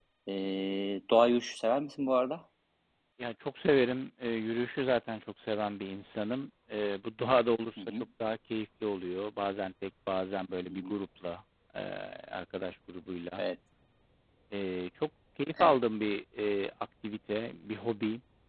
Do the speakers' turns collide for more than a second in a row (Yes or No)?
No